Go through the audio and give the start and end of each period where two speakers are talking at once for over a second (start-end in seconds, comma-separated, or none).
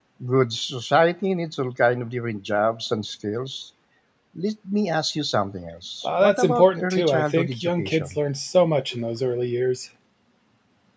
6.0-8.2